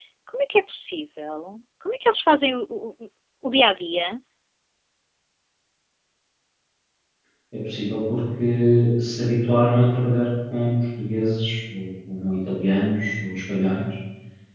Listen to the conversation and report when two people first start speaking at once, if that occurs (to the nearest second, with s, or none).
none